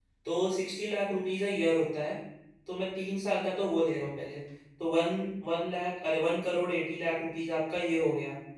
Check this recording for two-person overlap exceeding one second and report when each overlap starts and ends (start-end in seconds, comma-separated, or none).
none